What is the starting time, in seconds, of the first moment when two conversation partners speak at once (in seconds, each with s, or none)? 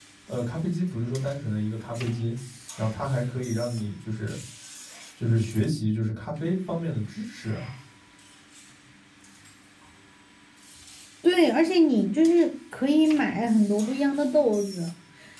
none